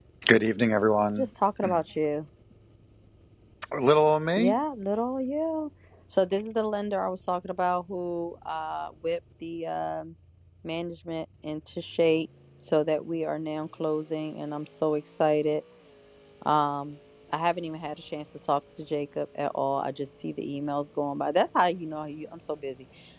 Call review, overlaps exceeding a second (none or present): none